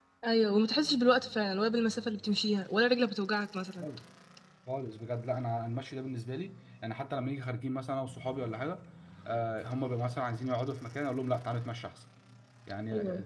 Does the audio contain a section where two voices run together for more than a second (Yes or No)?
No